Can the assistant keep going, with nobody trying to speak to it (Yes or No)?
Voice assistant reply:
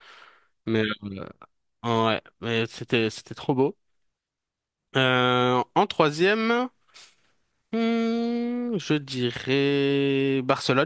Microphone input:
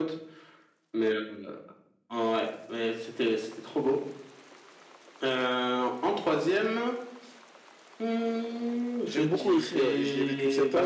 No